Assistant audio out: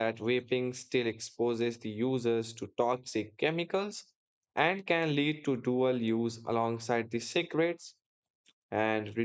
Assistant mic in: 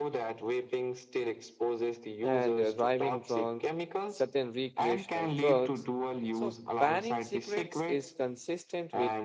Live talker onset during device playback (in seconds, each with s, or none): 2.2 s